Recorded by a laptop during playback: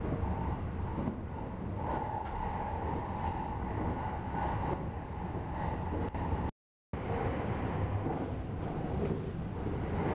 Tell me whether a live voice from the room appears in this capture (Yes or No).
No